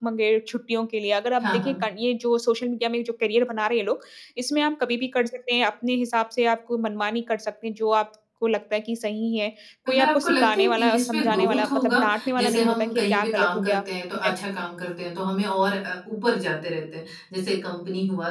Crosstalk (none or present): present